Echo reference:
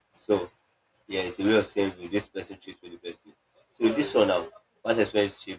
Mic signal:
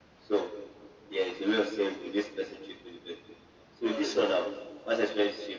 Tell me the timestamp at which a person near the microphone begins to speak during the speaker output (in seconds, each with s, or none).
none